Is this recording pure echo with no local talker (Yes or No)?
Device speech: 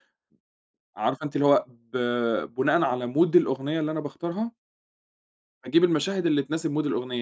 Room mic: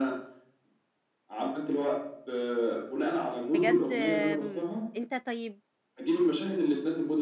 No